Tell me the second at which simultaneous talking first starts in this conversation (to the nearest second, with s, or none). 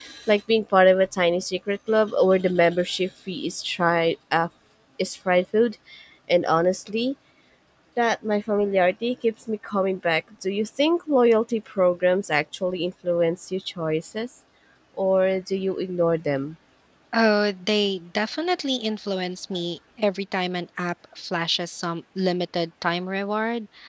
none